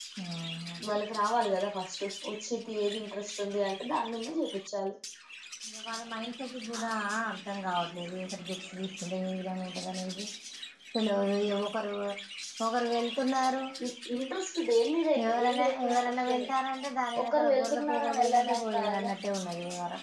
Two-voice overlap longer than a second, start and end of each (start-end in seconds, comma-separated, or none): 15.3-16.5, 17.2-19.1